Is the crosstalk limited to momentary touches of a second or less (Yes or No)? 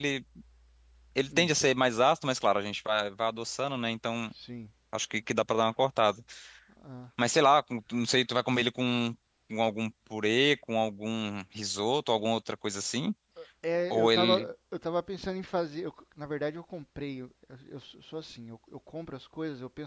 Yes